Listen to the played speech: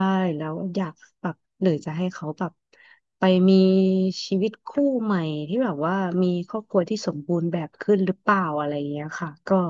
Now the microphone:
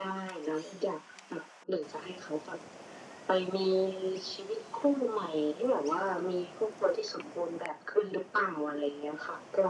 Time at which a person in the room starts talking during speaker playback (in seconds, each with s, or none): none